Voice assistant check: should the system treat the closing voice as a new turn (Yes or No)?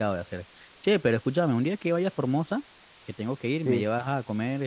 No